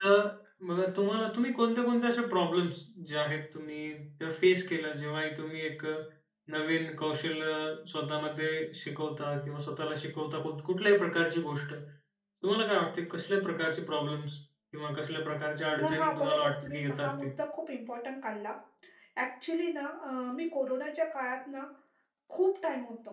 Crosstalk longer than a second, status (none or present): present